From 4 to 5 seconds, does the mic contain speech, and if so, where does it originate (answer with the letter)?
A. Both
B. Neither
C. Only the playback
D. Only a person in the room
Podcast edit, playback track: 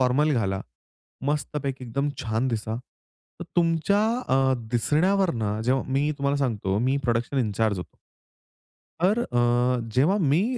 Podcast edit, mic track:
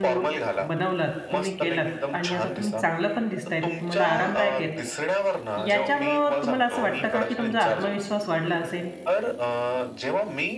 A